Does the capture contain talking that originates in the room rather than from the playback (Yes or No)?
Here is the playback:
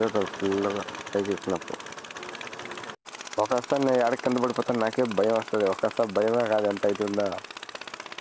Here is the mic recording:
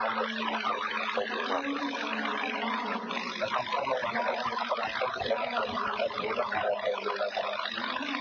Yes